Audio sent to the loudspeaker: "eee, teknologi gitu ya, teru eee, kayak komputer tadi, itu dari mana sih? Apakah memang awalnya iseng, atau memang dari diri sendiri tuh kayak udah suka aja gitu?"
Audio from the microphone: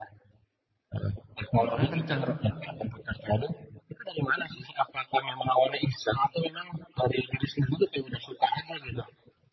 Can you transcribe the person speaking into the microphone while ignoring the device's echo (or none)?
motornya kenceng gitu.